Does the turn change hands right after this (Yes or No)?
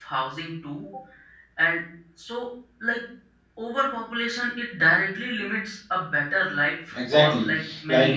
Yes